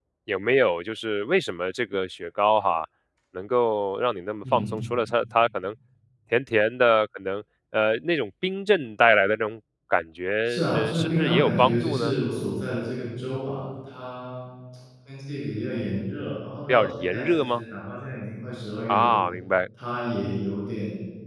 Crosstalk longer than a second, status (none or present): present